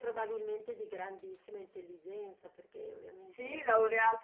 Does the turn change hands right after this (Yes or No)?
Yes